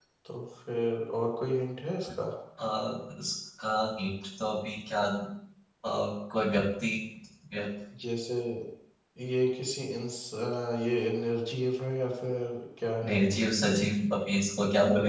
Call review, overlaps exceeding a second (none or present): none